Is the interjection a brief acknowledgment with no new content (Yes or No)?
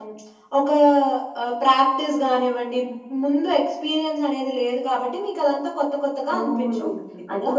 No